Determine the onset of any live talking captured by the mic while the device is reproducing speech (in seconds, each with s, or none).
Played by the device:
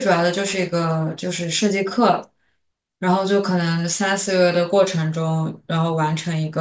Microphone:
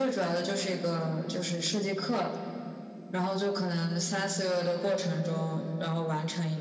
none